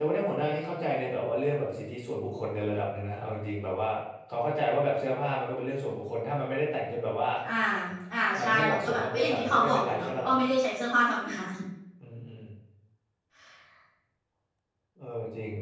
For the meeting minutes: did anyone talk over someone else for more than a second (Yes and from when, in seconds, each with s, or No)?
Yes, from 8.4 s